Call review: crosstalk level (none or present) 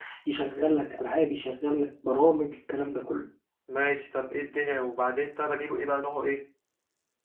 none